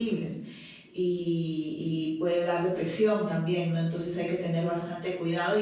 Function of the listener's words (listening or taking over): listening